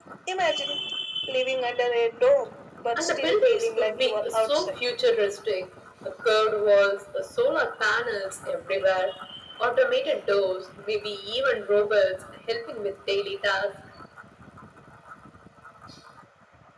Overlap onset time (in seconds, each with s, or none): 3.0 s